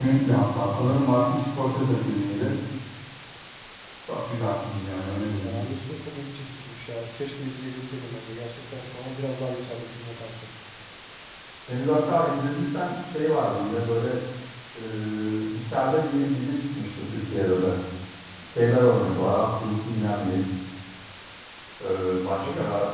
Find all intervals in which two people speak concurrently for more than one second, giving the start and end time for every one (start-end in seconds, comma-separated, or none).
none